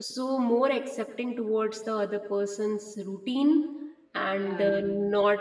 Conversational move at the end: listening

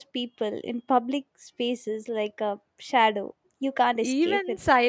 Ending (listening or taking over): taking over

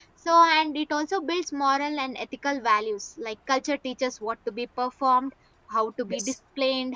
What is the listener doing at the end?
listening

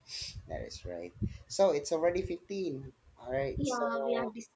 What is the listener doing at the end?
taking over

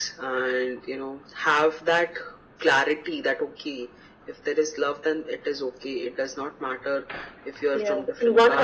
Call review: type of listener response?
taking over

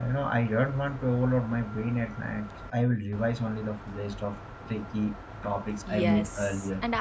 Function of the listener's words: taking over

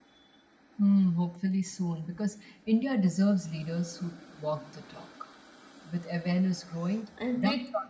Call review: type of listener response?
listening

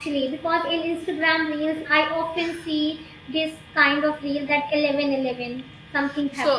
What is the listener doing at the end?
taking over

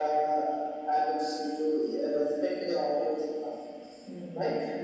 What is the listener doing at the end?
taking over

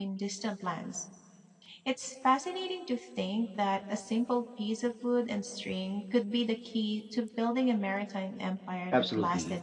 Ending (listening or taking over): taking over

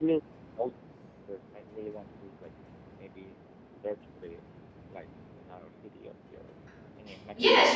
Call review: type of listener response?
taking over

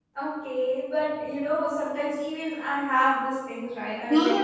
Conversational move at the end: taking over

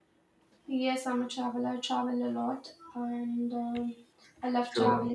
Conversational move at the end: listening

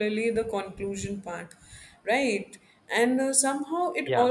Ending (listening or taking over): listening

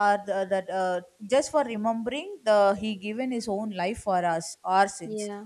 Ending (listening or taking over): listening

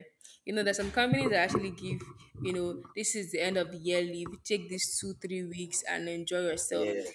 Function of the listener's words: listening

